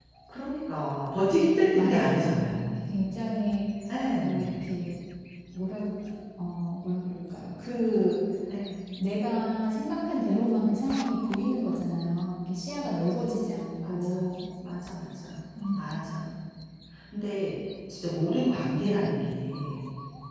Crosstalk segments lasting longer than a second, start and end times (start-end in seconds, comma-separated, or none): 1.7-2.9